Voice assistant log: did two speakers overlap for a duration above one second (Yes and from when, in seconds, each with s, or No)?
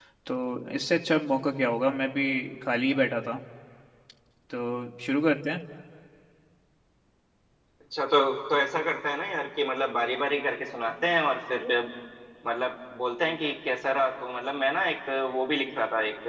No